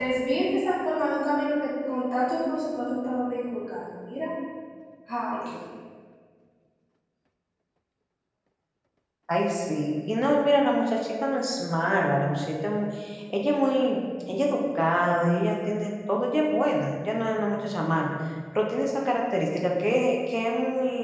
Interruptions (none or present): none